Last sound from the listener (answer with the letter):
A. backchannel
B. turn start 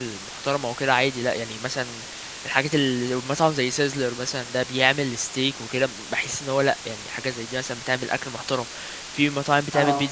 A